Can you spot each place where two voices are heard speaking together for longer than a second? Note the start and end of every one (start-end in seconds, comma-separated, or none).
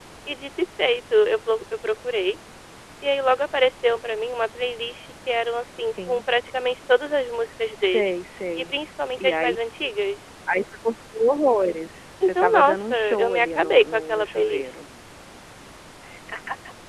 12.2-14.7